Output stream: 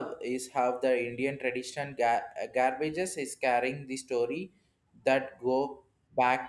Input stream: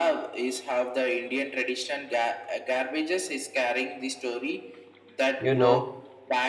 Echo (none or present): present